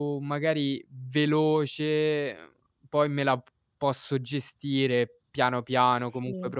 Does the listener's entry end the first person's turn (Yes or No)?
No